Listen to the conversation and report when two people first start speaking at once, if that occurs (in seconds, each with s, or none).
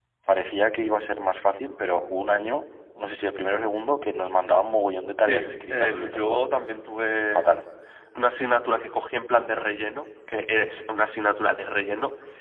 5.2 s